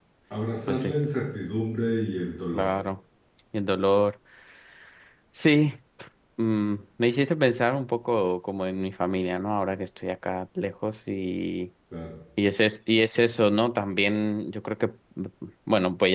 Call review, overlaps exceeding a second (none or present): none